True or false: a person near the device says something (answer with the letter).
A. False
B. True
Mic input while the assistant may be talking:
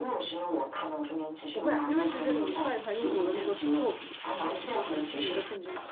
B